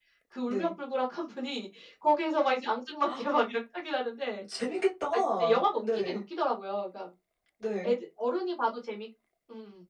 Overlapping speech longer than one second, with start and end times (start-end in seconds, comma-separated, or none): none